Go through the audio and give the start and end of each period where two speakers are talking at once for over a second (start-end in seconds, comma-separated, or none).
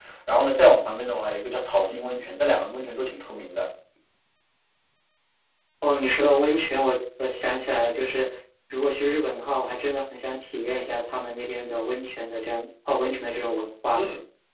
none